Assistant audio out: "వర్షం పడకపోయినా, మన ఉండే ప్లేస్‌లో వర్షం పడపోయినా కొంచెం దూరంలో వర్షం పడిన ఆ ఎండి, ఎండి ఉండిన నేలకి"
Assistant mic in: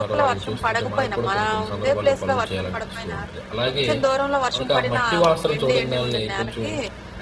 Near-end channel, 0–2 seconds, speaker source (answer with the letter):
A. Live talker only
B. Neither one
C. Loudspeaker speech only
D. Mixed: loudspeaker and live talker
D